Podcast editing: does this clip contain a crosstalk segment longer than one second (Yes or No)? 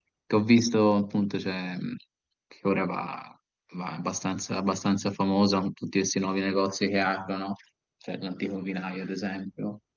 No